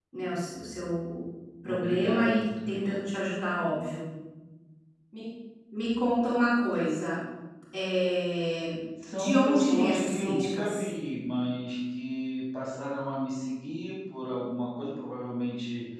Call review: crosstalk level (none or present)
present